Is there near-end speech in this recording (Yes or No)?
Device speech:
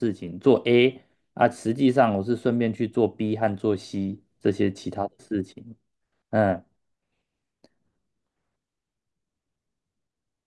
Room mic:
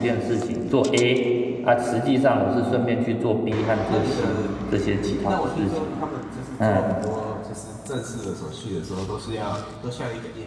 Yes